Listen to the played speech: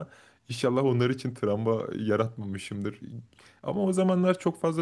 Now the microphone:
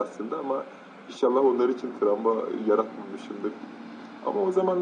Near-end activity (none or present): none